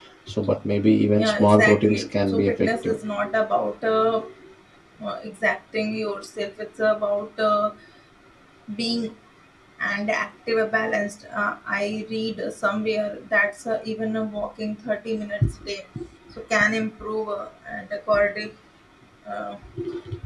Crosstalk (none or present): present